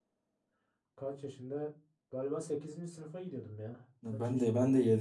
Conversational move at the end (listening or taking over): taking over